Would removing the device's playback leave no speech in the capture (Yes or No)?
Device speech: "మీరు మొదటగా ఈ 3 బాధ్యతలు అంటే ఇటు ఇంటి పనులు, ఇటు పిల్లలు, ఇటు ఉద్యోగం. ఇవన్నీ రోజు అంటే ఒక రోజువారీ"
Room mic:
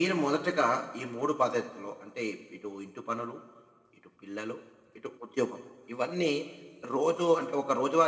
Yes